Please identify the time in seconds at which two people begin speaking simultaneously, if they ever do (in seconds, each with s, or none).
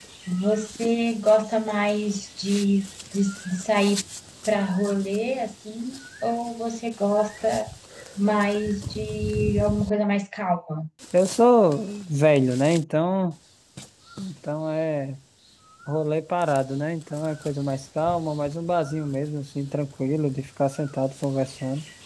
none